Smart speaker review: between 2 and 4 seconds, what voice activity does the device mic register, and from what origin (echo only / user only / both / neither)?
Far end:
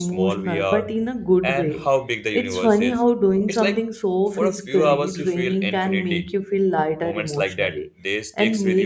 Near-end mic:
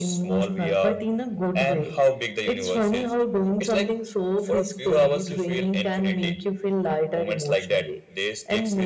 echo only